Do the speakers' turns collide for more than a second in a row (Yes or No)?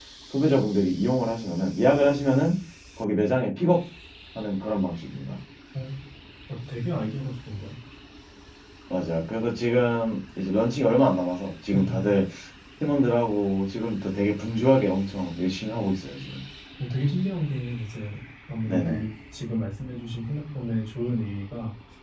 No